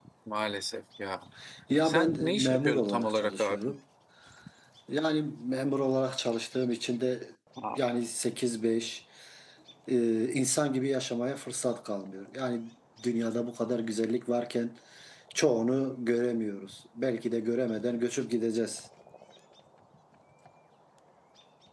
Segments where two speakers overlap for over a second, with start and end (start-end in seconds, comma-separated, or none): 1.8-3.7